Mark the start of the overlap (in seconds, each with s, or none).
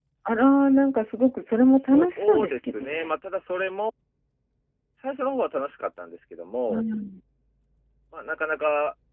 1.5 s